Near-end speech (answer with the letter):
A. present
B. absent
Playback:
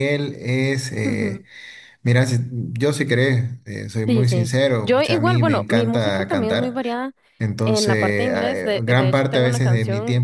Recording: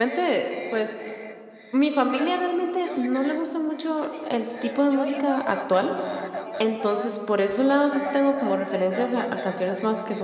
A